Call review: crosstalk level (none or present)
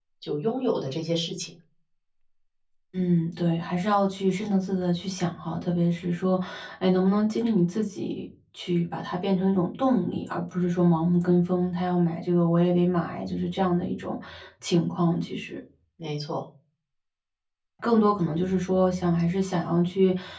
none